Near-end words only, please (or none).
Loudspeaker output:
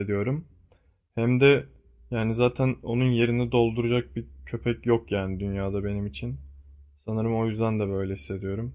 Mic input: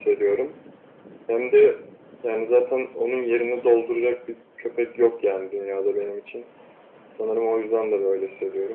none